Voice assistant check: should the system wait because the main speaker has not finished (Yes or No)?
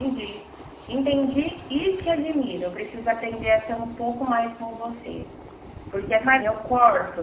Yes